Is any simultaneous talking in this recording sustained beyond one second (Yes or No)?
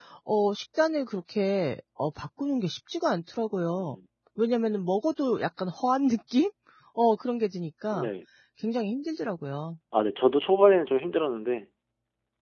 No